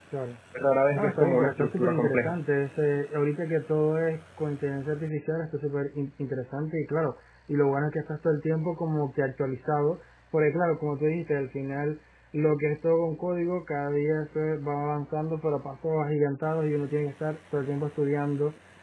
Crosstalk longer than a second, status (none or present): present